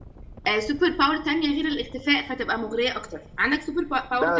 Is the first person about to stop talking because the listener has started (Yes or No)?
Yes